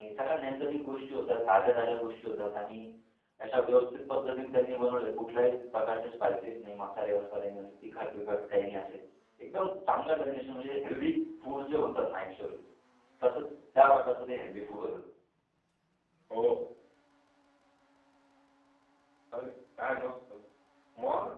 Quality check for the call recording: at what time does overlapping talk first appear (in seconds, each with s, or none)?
none